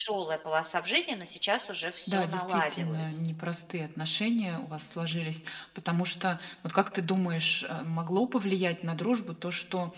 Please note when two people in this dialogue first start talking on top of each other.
2.1 s

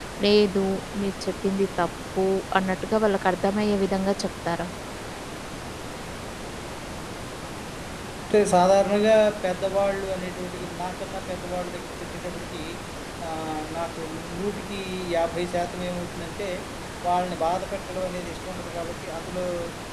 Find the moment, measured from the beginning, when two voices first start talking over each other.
none

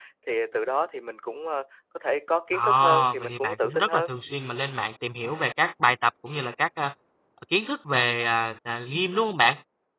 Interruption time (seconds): 2.5 s

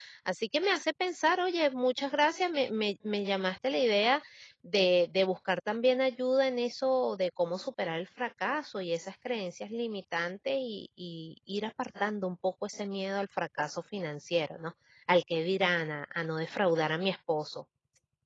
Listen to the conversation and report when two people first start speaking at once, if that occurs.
none

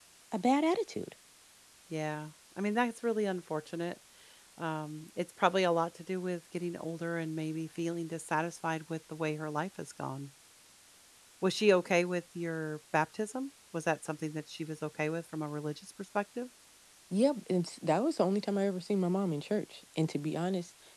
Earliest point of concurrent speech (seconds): none

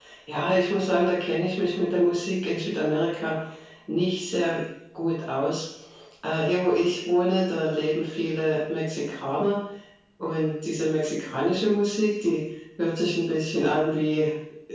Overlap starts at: none

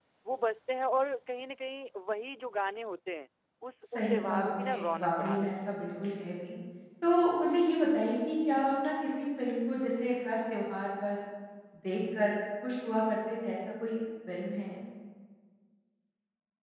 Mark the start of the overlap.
4.0 s

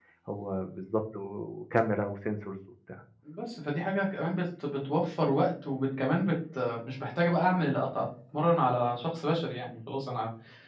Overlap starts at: none

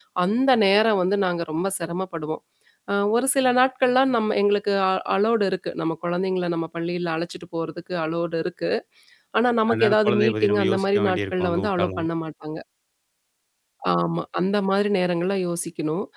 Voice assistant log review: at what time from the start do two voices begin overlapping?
9.7 s

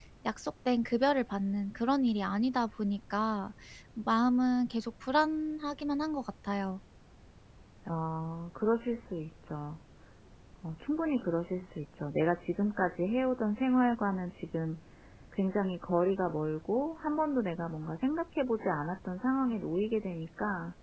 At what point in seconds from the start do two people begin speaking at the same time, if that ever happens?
none

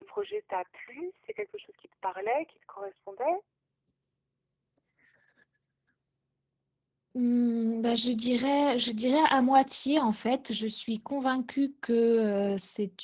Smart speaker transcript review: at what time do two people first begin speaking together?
none

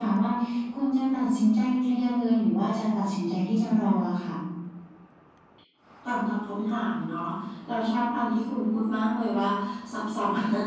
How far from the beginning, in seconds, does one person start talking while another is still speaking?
none

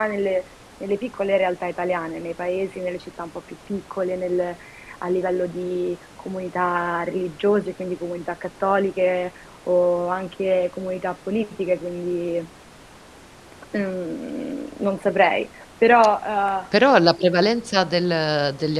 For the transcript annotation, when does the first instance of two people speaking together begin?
none

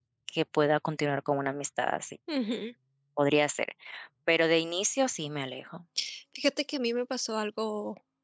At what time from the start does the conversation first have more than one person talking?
none

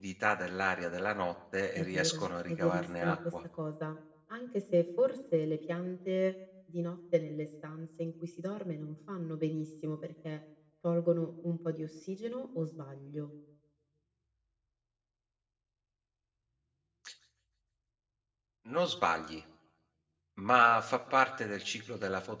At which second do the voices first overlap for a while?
1.8 s

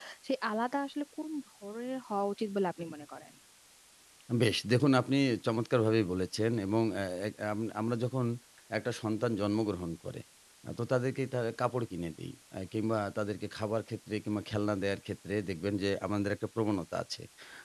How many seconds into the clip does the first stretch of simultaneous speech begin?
none

